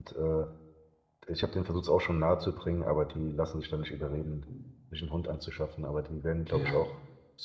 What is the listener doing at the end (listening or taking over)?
listening